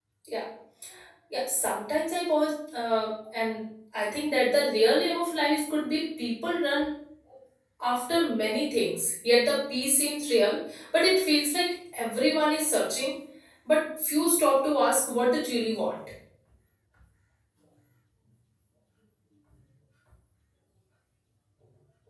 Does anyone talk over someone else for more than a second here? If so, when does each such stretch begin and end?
none

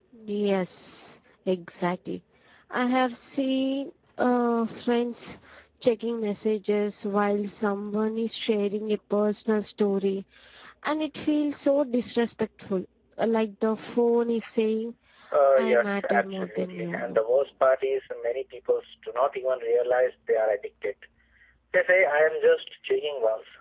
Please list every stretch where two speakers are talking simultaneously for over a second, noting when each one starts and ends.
15.6-17.2

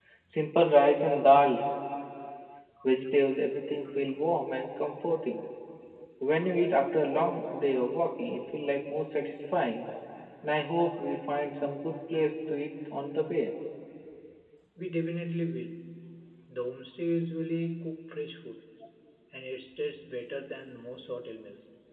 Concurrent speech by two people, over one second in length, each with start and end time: none

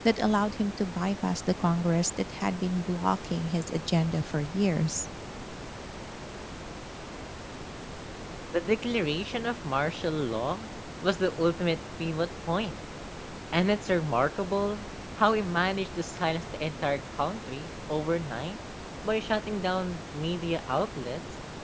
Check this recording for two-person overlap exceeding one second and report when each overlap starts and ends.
none

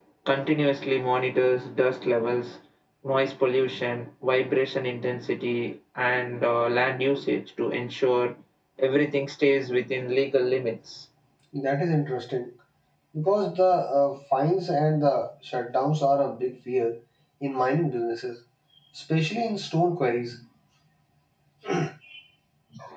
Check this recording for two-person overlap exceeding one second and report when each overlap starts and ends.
none

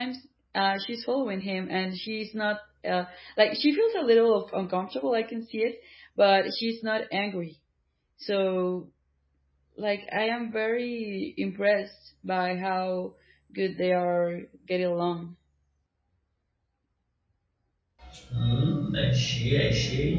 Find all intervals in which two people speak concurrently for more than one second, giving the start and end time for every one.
none

